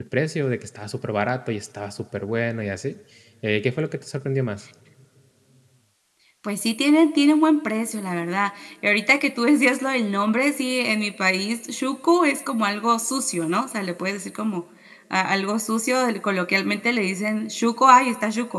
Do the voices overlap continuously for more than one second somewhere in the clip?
No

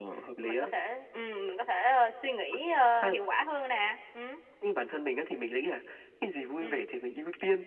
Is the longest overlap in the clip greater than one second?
No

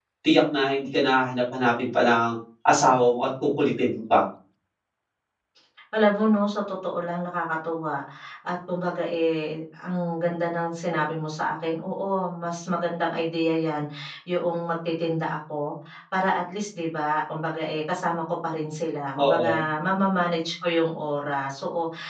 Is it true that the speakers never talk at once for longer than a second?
Yes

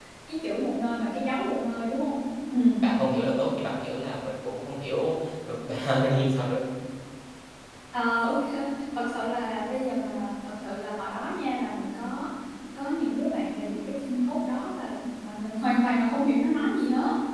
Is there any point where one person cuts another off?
No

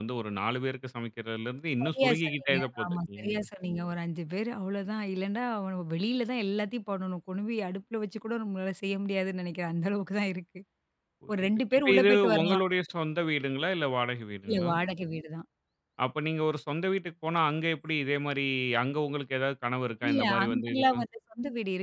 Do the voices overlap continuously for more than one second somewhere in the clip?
Yes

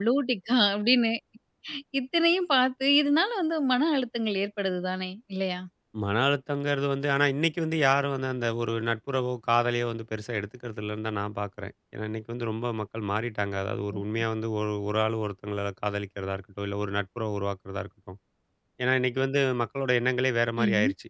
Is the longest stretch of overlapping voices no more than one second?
Yes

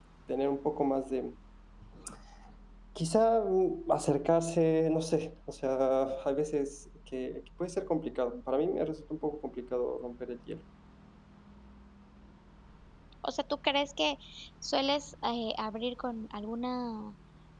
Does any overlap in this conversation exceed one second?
No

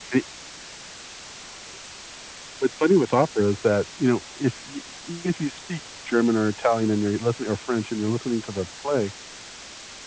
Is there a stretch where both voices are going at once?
No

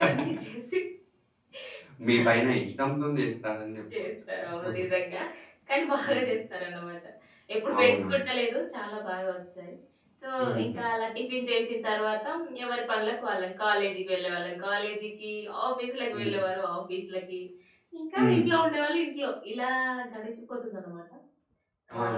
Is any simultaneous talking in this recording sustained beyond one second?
No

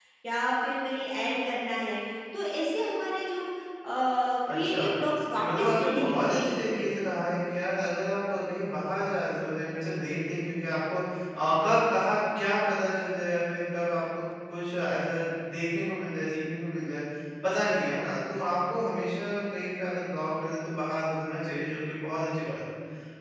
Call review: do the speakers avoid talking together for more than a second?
No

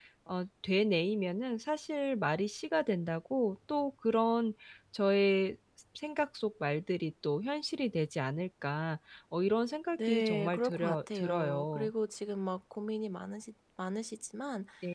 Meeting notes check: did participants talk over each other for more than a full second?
Yes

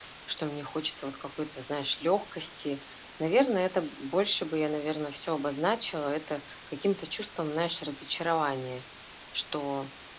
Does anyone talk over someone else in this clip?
No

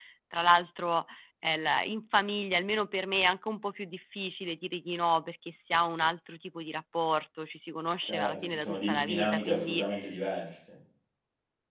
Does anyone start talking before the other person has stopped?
Yes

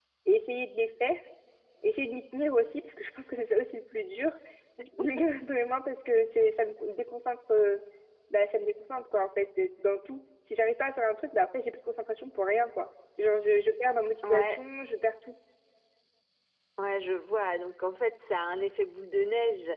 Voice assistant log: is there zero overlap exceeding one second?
Yes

